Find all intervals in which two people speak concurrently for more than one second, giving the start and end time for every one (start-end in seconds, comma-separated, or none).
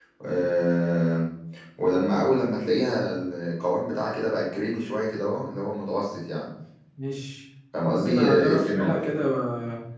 7.9-9.1